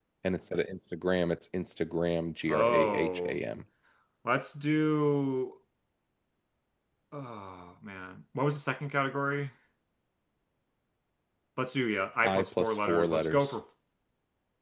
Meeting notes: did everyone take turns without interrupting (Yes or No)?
No